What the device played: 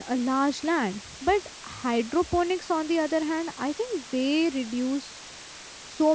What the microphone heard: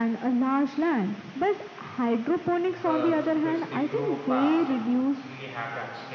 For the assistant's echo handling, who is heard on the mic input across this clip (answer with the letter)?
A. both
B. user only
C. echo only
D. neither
A